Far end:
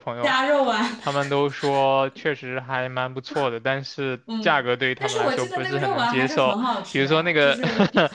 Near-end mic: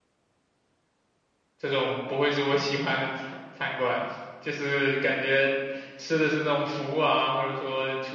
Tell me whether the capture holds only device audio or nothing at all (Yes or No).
No